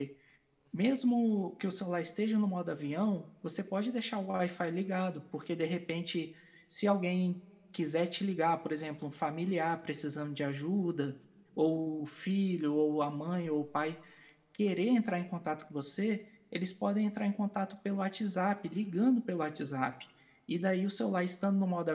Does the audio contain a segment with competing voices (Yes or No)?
No